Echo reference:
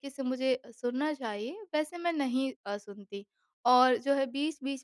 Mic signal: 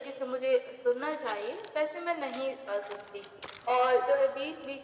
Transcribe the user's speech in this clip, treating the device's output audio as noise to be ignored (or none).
none